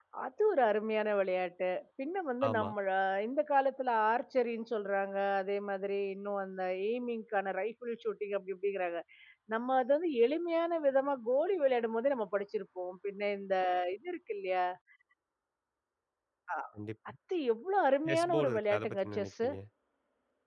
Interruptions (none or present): present